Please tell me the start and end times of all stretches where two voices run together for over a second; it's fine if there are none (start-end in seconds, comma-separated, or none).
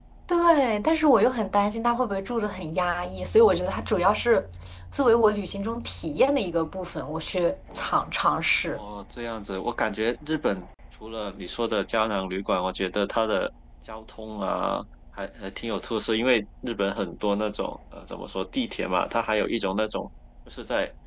none